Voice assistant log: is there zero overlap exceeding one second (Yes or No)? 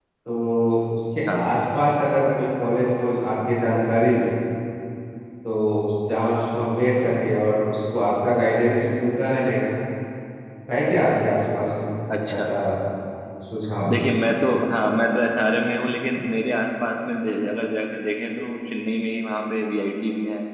Yes